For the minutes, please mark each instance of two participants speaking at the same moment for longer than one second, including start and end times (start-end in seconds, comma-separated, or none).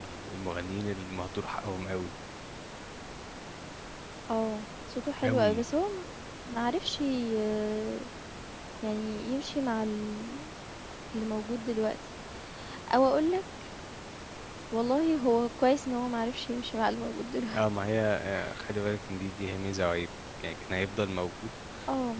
none